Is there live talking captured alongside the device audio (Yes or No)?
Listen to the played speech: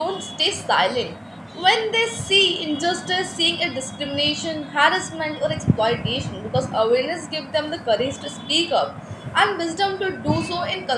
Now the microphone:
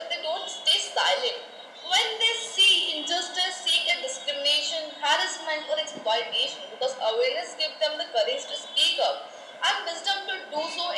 No